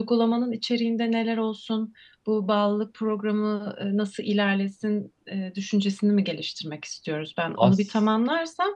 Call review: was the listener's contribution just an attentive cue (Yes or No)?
Yes